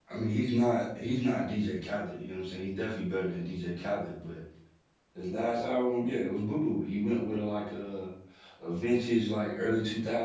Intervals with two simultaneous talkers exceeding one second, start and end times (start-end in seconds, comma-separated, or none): none